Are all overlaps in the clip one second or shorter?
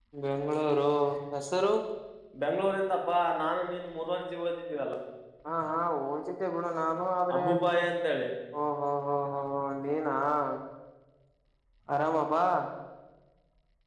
Yes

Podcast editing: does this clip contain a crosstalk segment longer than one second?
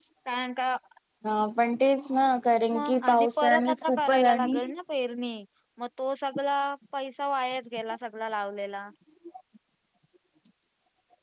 Yes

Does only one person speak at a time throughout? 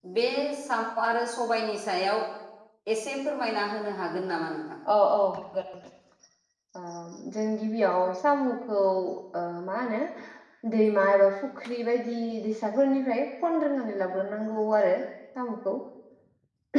Yes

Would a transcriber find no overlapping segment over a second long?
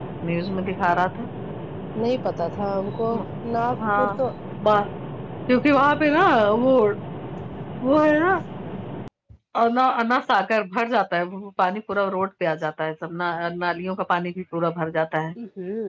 Yes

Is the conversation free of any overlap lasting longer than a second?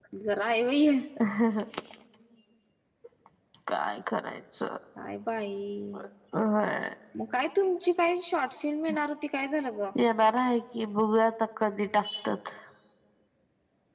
Yes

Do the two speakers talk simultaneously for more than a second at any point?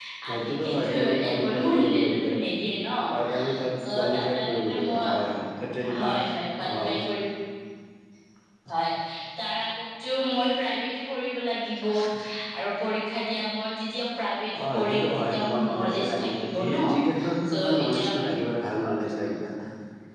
Yes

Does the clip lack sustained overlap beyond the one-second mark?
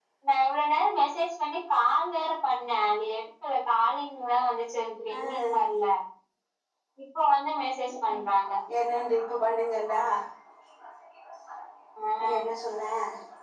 Yes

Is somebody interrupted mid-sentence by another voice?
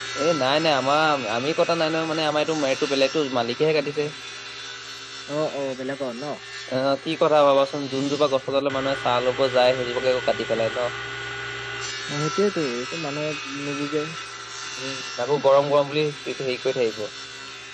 No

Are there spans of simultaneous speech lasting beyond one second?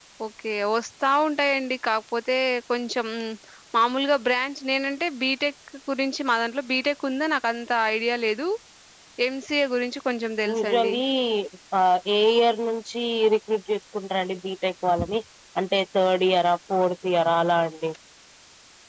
No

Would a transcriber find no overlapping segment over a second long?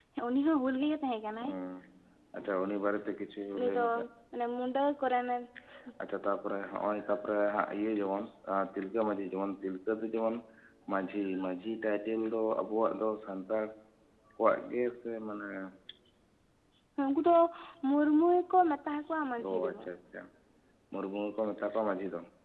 Yes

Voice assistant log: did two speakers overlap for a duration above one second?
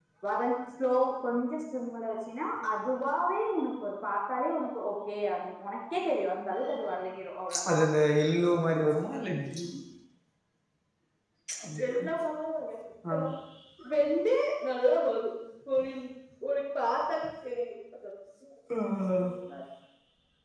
No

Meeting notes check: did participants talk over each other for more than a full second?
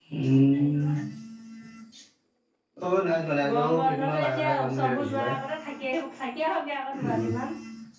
Yes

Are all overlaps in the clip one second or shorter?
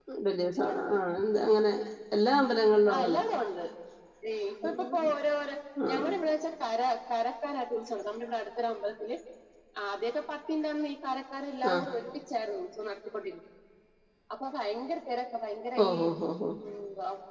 Yes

